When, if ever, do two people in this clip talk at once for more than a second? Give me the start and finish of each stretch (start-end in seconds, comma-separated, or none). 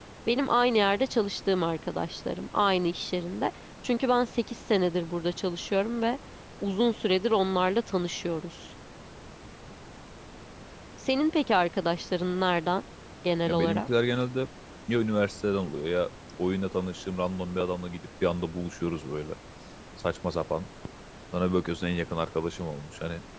none